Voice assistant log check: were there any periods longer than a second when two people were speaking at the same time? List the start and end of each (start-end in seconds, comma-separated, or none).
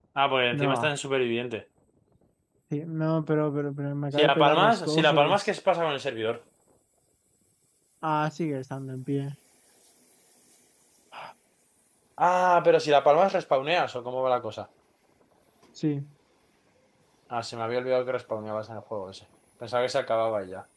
4.2-5.5